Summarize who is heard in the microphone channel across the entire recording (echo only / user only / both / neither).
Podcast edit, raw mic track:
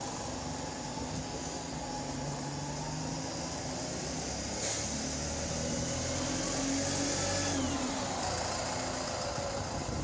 neither